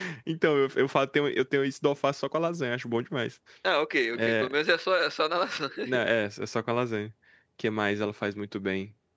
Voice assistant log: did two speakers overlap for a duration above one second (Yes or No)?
No